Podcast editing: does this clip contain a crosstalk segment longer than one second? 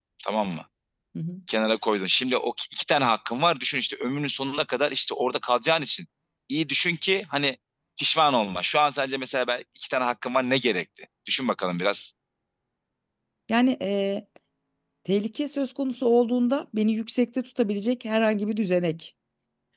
No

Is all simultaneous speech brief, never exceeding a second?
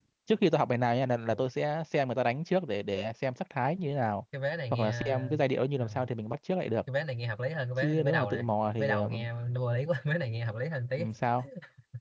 No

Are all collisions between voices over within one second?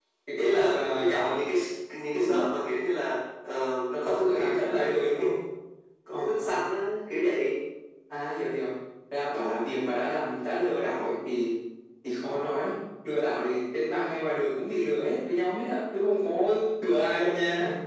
No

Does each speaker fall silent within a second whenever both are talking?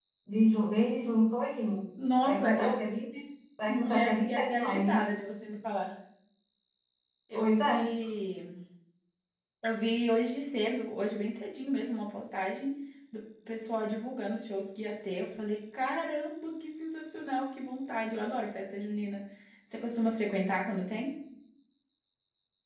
No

